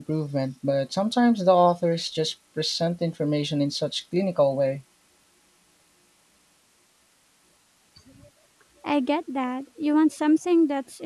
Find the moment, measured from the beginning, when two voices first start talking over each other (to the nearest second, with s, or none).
none